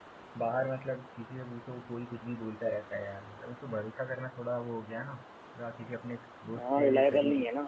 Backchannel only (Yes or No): No